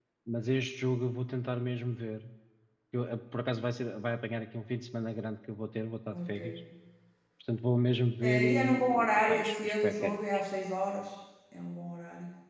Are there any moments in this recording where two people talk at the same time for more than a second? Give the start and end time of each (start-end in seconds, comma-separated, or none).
8.2-10.4